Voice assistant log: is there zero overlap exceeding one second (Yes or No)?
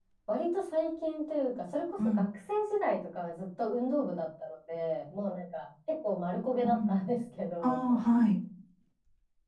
Yes